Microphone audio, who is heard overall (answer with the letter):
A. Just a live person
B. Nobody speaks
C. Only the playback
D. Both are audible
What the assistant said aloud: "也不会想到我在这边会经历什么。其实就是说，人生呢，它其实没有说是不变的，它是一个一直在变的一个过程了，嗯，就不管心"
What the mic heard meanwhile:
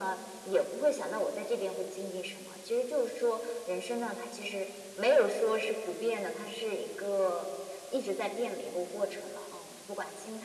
C